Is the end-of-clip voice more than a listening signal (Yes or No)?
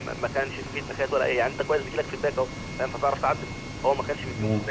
No